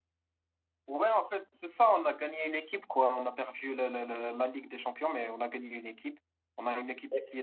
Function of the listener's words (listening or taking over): listening